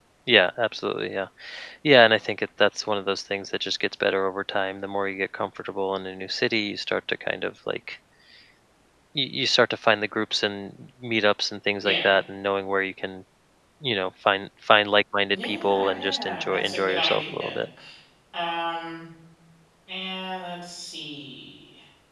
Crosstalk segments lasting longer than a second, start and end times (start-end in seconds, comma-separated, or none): 15.3-17.6